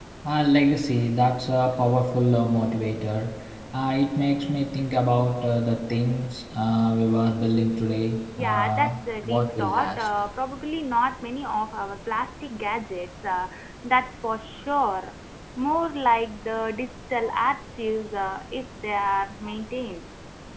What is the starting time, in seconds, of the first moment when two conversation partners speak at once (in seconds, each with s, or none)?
8.4 s